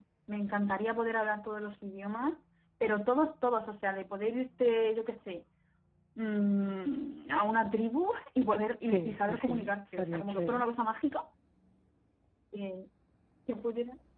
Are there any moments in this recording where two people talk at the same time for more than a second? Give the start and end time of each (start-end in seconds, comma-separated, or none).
8.8-10.6